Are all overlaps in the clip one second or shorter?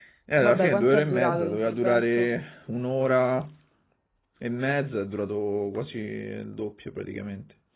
No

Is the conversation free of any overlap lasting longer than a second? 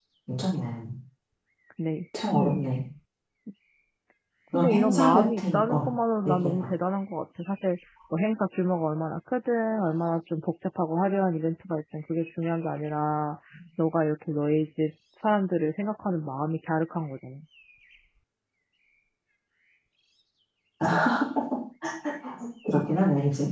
No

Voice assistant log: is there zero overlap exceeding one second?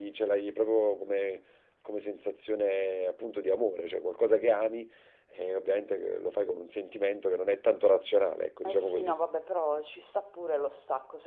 Yes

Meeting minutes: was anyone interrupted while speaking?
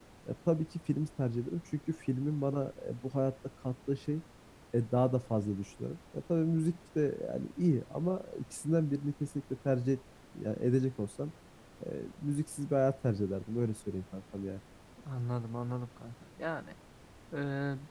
No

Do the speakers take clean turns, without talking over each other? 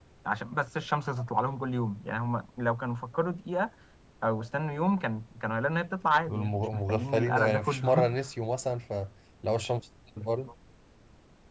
No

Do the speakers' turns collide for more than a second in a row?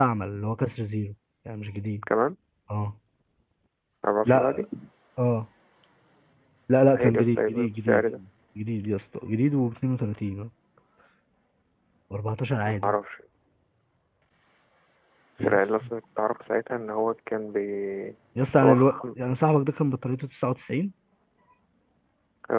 Yes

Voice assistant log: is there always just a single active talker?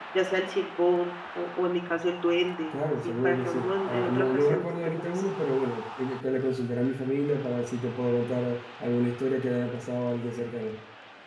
No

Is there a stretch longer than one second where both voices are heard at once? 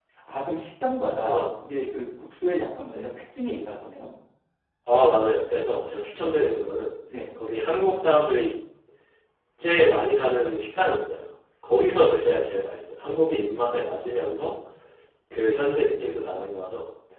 No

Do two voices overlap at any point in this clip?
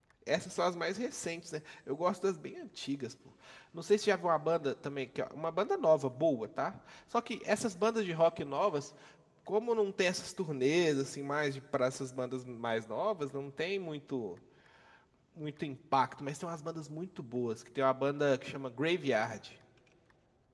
No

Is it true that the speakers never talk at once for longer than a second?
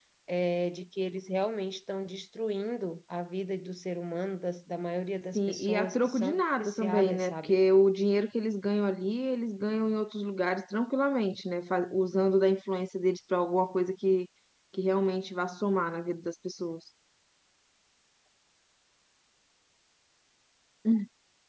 No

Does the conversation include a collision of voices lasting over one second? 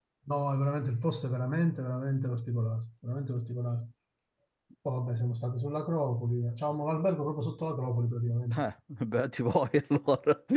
No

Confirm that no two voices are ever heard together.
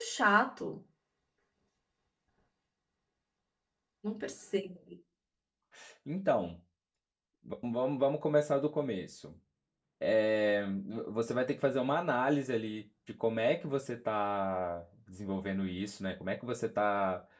Yes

